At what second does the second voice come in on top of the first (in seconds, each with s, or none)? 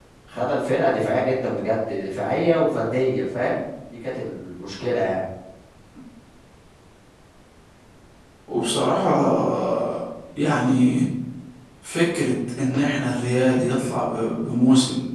none